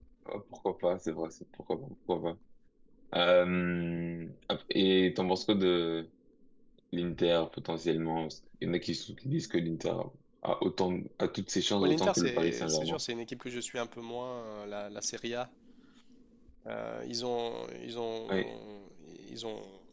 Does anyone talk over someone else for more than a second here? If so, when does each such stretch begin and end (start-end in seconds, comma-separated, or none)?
11.8-13.0